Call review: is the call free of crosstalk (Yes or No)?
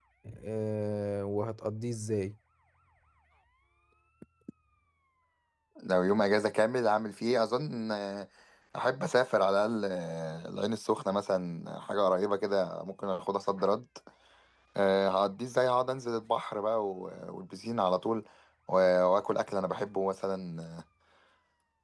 Yes